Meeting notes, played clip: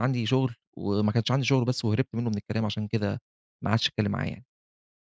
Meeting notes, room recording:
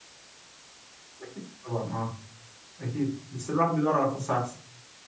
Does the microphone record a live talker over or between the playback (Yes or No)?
Yes